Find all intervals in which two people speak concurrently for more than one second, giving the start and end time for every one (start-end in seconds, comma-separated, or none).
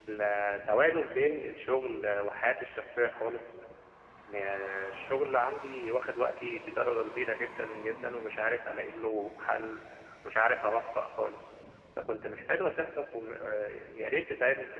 none